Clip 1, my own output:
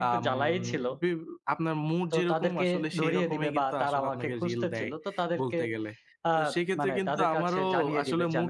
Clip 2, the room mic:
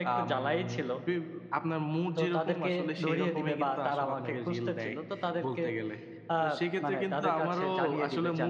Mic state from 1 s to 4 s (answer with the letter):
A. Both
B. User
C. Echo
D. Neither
C